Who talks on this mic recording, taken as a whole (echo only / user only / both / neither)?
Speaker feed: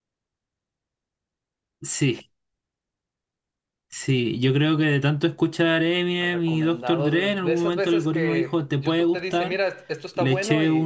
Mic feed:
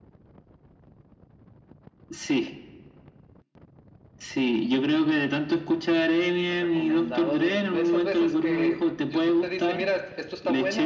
echo only